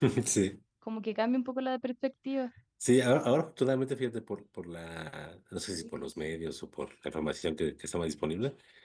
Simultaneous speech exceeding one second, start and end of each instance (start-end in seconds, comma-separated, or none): none